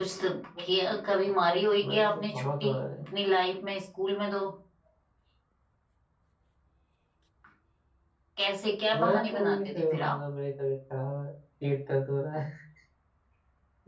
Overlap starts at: 1.4 s

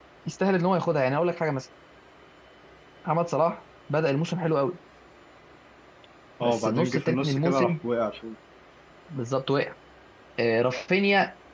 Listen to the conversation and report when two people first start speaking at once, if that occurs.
6.4 s

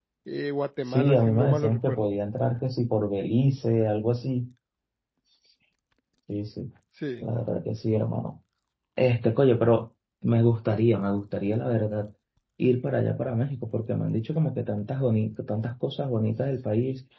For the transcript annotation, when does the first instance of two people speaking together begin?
0.8 s

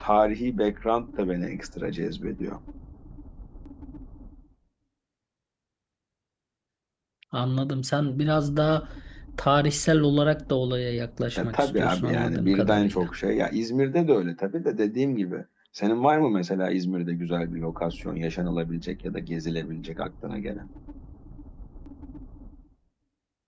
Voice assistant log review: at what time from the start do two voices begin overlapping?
11.4 s

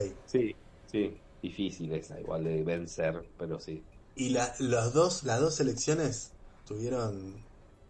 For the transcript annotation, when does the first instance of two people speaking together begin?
none

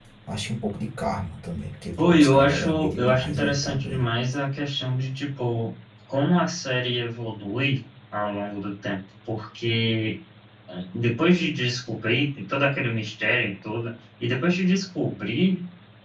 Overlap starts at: 2.0 s

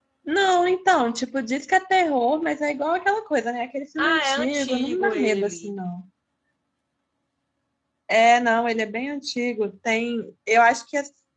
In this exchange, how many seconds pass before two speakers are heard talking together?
4.0 s

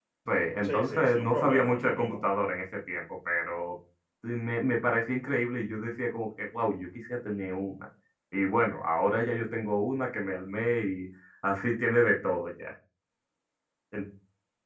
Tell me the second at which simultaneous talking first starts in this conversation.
0.6 s

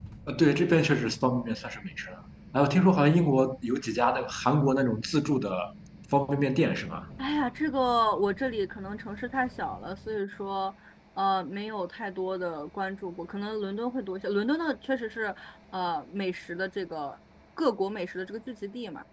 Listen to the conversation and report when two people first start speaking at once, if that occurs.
none

